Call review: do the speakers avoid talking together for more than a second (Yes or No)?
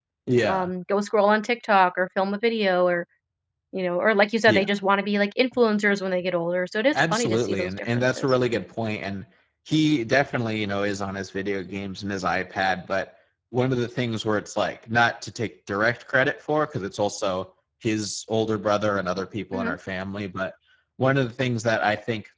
No